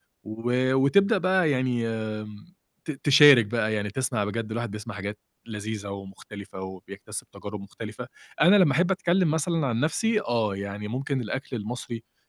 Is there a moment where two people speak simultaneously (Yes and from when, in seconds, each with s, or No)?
No